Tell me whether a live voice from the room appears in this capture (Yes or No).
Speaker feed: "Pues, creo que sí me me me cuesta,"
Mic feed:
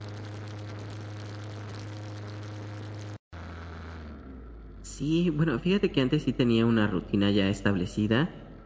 Yes